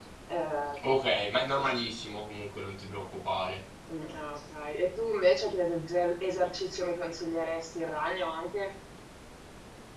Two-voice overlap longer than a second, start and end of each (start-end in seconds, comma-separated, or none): none